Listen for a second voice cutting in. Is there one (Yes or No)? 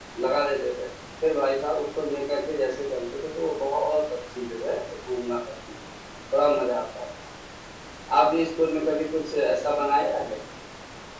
No